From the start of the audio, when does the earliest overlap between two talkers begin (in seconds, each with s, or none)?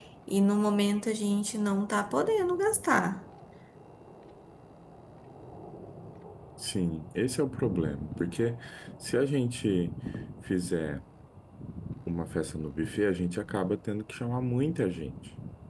none